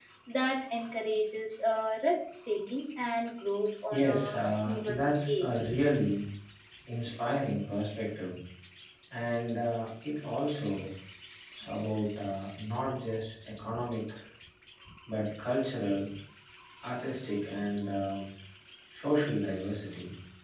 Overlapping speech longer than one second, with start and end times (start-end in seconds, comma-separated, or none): 3.9-5.5